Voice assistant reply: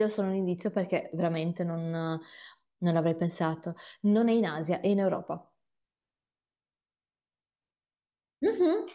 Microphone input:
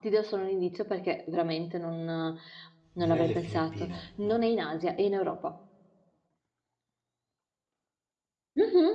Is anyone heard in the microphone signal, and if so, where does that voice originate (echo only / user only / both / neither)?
both